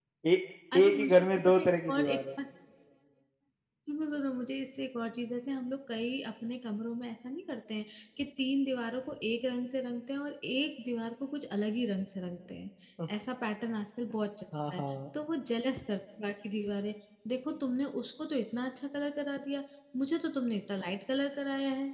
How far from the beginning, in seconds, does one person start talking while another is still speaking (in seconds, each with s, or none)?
0.7 s